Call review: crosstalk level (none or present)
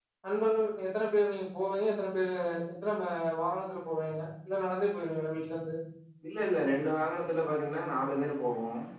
none